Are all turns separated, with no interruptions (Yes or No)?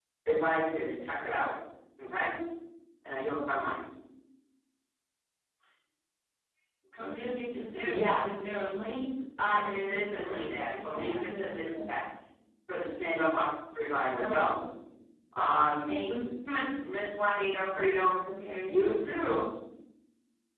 No